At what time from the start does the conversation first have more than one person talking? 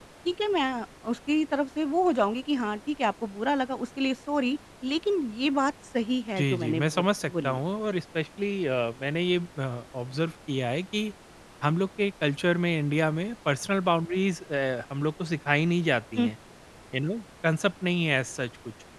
6.4 s

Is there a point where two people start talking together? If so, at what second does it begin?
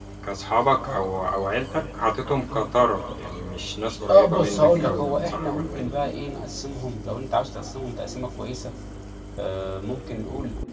4.1 s

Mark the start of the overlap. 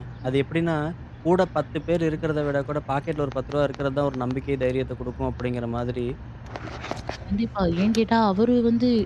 none

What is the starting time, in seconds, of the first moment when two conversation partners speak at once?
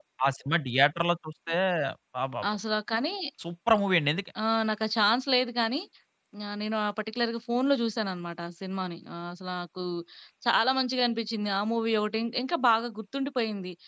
none

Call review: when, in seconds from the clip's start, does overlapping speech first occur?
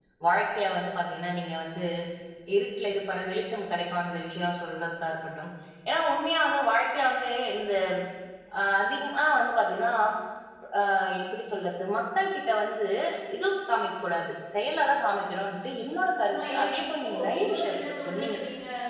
16.3 s

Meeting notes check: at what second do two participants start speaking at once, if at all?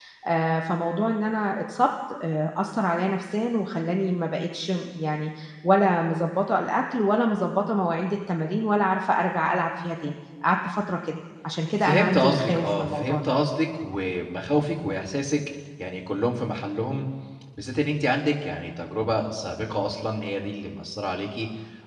11.8 s

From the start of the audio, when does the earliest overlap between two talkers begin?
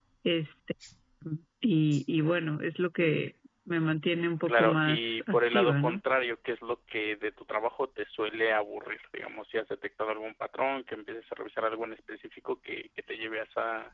4.5 s

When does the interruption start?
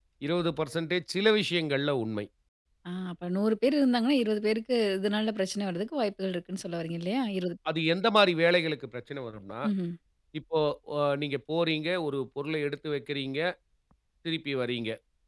none

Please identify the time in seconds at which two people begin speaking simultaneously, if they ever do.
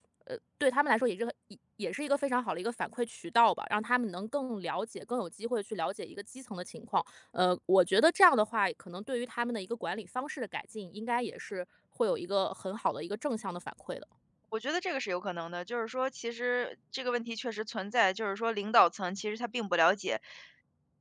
none

